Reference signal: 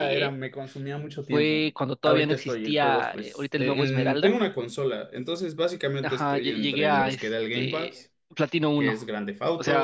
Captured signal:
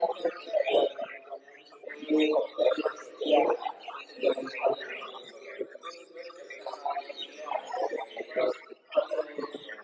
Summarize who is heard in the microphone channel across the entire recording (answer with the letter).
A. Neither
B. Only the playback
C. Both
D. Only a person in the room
B